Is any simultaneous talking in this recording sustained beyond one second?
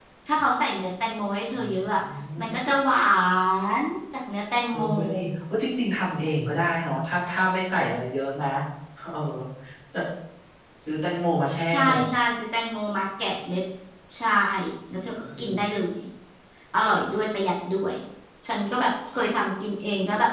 No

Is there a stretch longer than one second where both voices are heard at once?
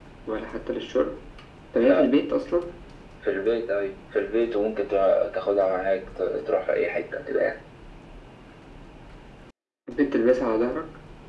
No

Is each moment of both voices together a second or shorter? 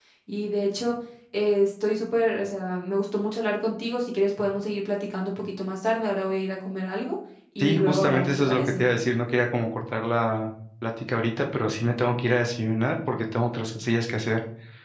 No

